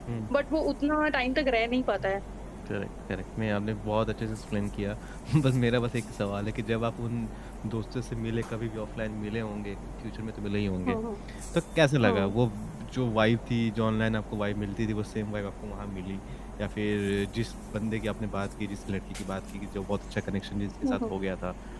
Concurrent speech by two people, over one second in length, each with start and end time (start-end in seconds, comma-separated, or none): none